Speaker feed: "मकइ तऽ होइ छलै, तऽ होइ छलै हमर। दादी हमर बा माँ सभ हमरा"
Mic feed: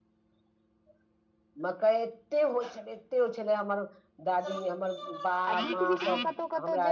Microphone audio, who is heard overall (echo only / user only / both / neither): both